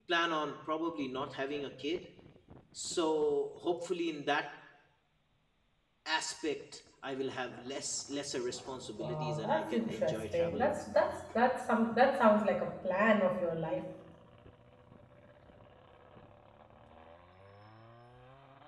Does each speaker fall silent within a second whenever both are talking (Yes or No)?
No